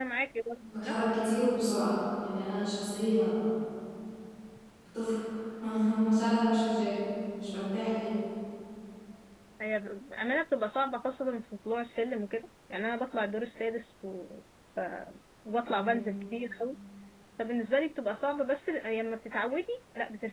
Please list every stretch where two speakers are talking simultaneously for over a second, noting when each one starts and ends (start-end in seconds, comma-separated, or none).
none